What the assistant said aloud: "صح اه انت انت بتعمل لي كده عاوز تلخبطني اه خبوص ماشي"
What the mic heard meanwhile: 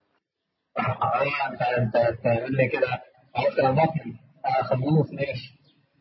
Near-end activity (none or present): none